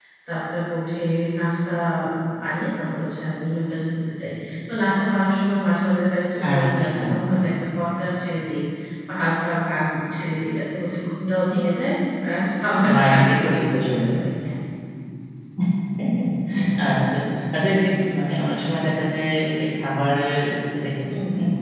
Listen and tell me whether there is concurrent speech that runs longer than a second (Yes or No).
Yes